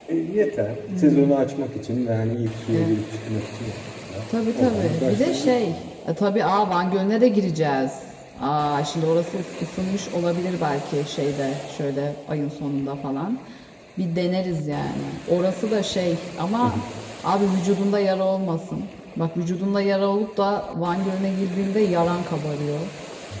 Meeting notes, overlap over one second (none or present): present